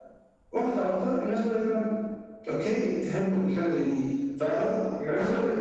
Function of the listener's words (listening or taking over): taking over